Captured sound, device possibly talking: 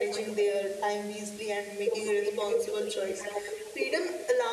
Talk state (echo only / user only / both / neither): both